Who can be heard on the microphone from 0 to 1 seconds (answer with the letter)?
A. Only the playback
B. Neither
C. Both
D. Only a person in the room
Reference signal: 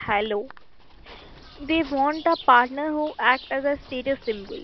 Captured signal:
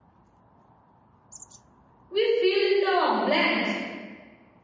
B